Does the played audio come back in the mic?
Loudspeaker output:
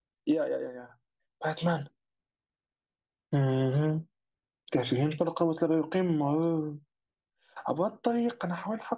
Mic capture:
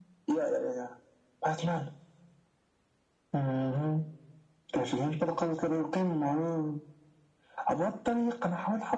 Yes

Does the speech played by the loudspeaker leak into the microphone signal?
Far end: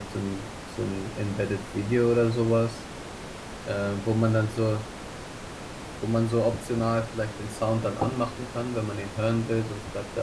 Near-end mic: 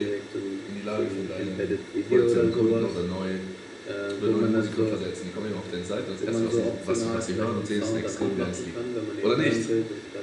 Yes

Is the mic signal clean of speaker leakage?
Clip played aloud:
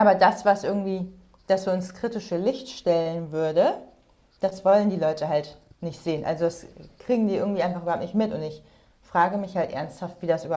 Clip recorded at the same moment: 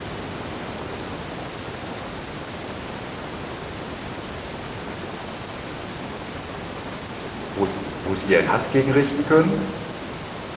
Yes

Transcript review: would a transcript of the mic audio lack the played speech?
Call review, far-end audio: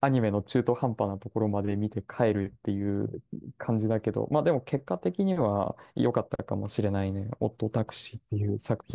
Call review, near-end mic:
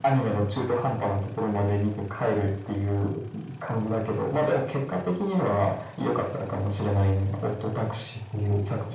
No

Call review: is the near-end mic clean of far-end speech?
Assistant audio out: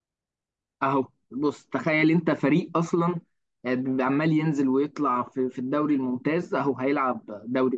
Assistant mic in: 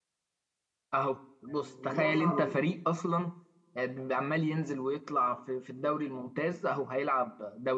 No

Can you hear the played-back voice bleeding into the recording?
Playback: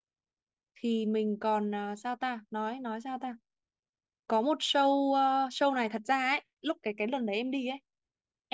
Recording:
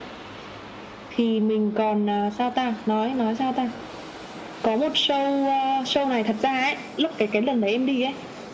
Yes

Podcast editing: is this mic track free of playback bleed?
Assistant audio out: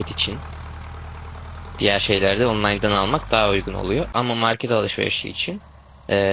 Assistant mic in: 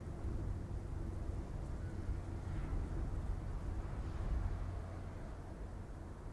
Yes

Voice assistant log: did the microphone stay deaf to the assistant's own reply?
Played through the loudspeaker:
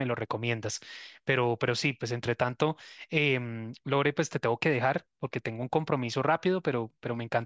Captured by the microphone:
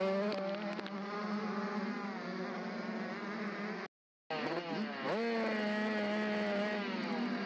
Yes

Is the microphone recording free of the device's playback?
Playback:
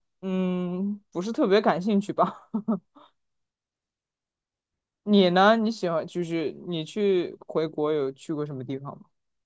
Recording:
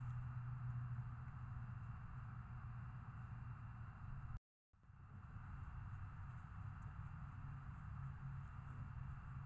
Yes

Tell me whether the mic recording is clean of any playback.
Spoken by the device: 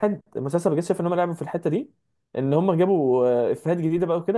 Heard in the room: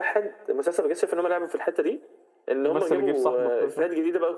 No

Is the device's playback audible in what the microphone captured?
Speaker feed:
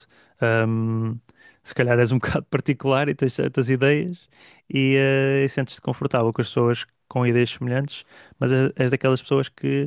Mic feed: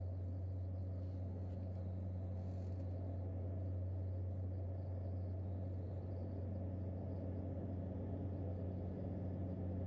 No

